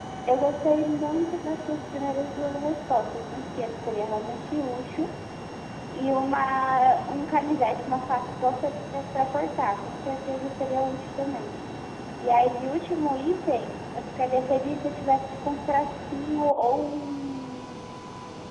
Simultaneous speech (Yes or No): No